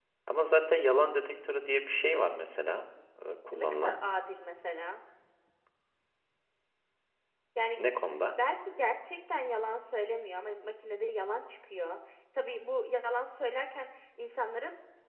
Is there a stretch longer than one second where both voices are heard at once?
No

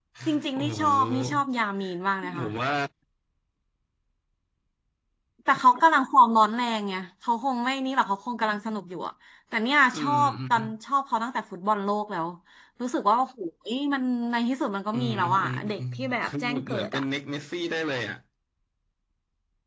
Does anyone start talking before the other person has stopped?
Yes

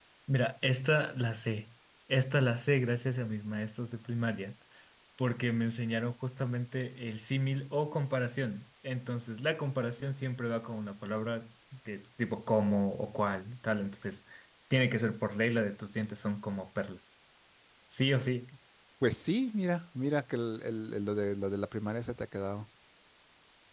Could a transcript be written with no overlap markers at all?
Yes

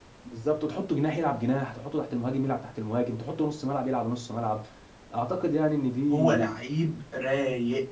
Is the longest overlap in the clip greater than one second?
No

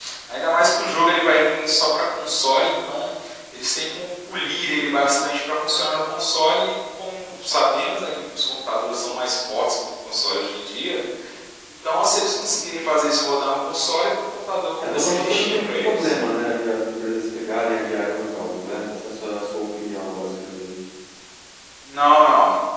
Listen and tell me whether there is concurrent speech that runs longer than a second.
Yes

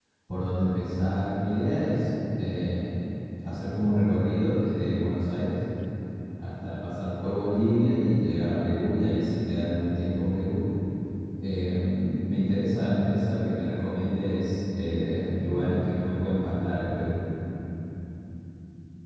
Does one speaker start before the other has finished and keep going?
No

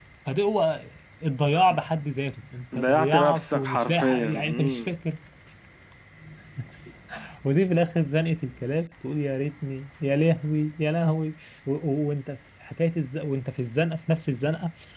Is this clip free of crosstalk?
No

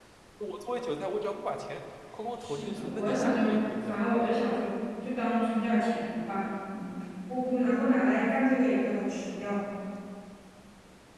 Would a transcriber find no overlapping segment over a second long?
No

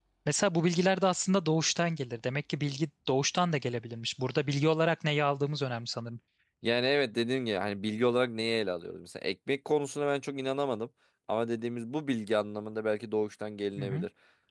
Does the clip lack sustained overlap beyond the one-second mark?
Yes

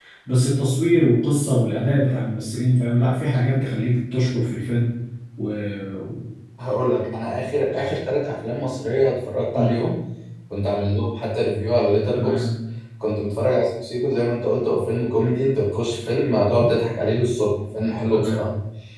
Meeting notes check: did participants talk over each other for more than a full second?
No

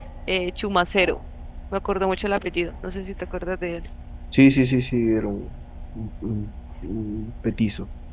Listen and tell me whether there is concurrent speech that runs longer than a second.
No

